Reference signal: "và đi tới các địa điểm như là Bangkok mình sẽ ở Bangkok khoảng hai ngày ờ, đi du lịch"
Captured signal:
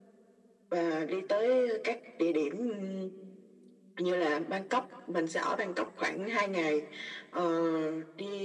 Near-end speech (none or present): none